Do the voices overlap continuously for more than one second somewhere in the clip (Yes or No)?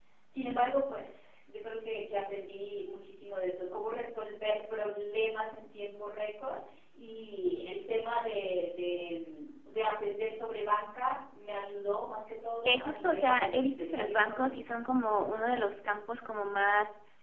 Yes